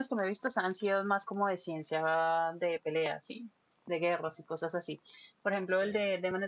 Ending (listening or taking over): listening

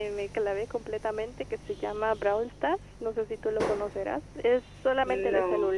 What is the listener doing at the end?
listening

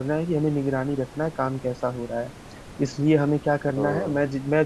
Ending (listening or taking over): listening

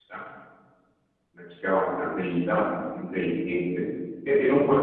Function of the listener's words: listening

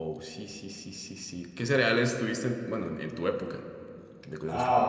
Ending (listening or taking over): taking over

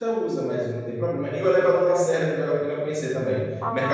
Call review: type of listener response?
listening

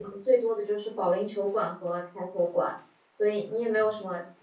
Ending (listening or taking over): listening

